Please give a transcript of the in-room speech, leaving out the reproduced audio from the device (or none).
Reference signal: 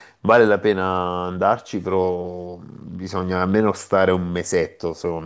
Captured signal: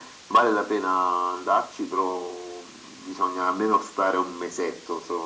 none